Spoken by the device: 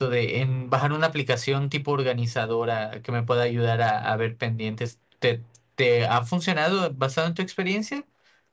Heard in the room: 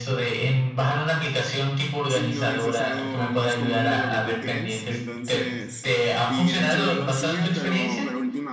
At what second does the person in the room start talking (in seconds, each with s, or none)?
2.1 s